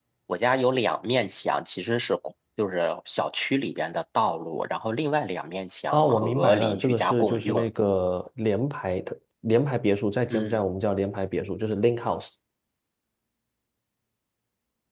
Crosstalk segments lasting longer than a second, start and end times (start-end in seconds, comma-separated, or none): 5.9-7.7